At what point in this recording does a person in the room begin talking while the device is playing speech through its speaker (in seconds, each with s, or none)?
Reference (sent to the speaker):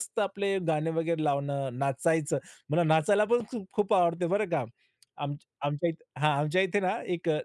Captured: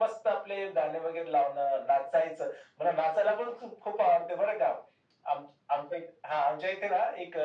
none